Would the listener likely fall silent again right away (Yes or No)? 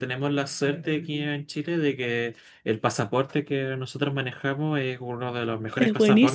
Yes